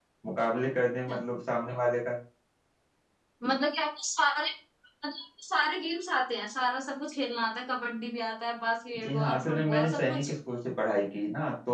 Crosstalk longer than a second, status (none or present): present